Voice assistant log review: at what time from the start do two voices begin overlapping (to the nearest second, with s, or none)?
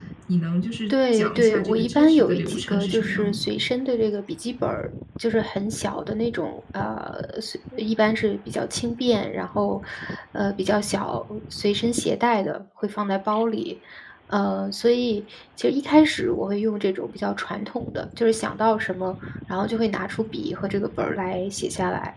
1 s